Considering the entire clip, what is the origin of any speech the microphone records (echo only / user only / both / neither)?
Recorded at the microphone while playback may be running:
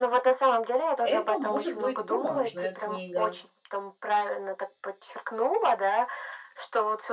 both